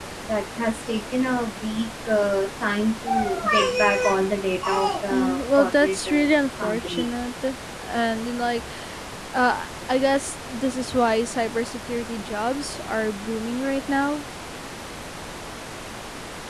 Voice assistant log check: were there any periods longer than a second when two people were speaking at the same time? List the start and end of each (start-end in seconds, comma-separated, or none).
5.1-7.1